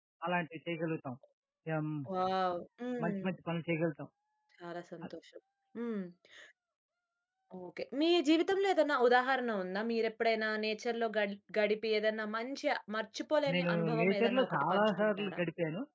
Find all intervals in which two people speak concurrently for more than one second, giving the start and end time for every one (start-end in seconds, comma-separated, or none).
13.5-15.4